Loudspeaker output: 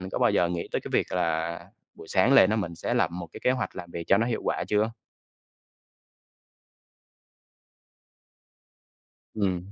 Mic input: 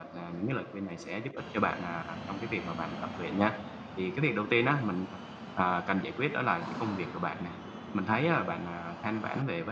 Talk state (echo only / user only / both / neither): user only